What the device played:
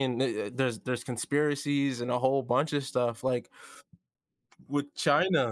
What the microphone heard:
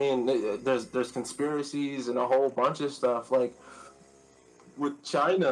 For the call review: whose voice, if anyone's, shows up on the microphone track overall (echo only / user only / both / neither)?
echo only